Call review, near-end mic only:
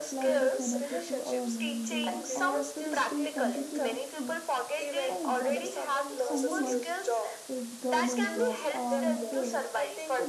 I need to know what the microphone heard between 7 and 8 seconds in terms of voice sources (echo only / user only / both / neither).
both